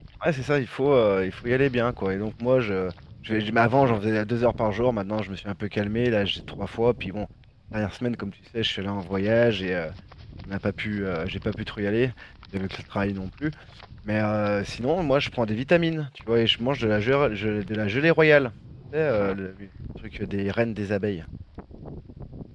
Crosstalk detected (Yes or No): No